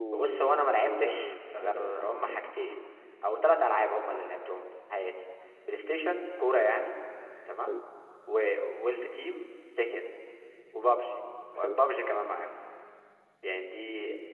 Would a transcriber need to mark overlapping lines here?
Yes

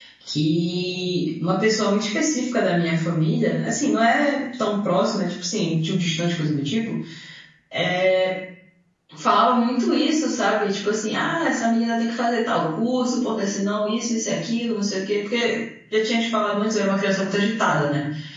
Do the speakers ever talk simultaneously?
No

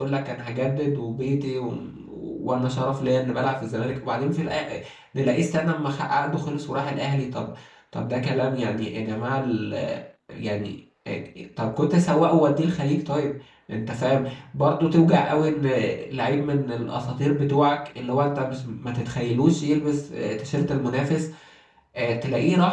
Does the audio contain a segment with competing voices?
No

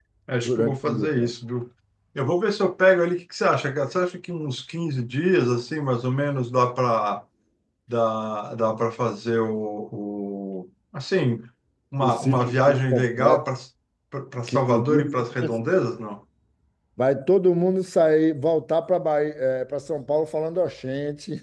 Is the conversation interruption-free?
No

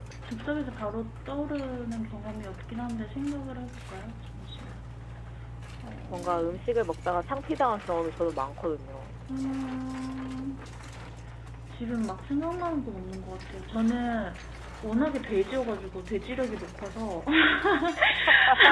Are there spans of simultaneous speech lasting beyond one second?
No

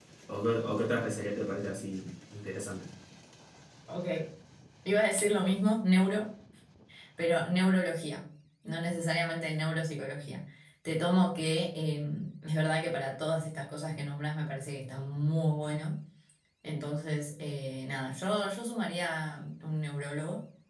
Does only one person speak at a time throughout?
Yes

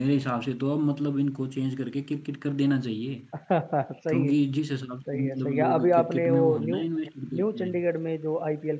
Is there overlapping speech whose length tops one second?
Yes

